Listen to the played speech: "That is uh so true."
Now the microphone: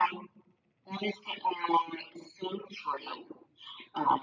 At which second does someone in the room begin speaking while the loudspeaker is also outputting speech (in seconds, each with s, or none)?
none